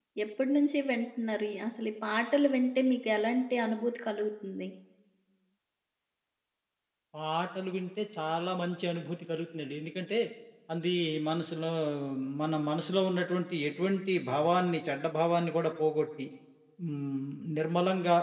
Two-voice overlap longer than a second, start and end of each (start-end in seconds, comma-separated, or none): none